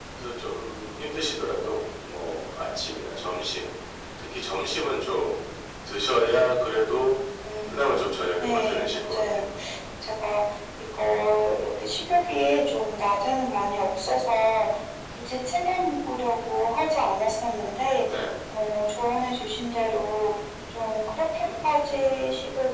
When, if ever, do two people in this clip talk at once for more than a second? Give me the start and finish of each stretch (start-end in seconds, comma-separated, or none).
7.7-9.4